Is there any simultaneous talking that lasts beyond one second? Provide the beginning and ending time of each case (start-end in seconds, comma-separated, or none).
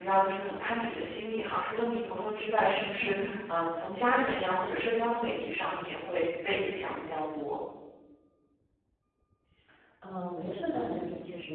none